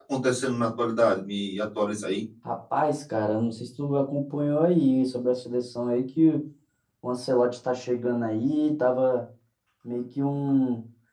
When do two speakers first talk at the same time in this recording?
none

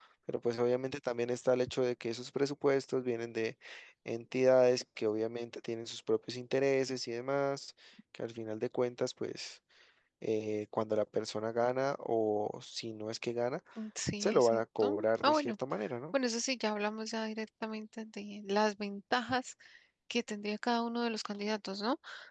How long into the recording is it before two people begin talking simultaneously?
14.2 s

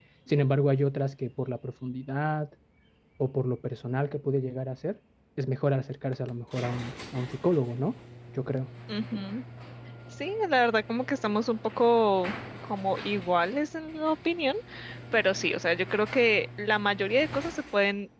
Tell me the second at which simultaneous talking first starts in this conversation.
none

